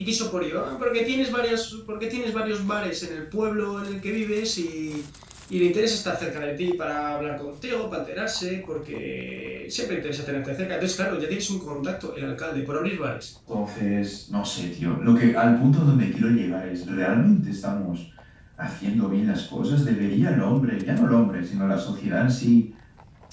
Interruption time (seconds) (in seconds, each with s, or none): none